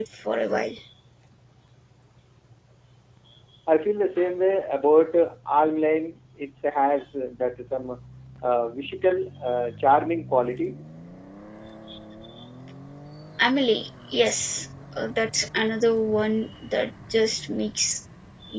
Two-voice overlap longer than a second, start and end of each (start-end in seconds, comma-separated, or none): none